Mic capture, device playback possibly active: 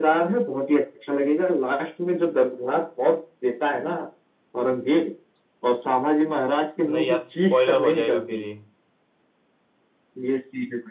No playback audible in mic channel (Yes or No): No